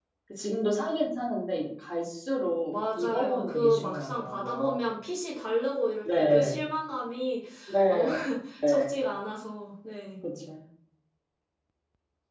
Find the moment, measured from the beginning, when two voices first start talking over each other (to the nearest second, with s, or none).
3 s